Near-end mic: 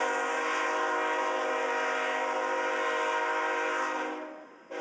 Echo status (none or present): none